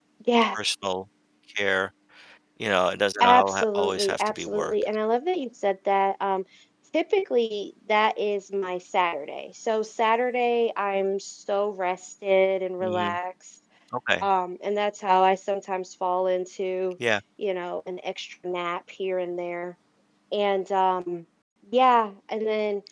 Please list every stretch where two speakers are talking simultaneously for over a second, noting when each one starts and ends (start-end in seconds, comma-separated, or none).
3.2-4.7